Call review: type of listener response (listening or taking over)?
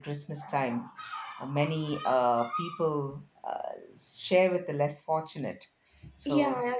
taking over